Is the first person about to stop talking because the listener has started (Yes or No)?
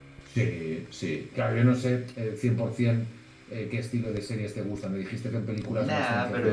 Yes